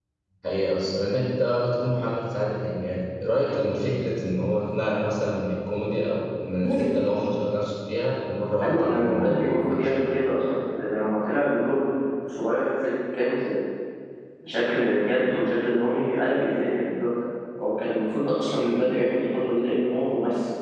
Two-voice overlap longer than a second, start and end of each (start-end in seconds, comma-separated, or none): 8.6-10.1